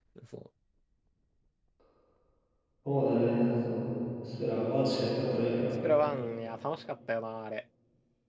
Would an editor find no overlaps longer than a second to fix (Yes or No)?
Yes